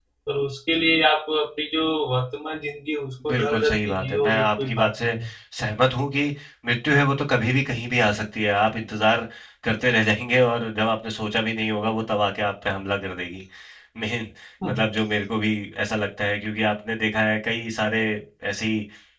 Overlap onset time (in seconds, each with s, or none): 3.3 s